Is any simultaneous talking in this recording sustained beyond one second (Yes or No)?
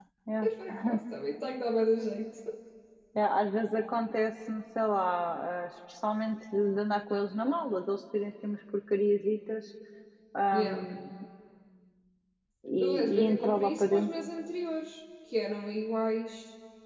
Yes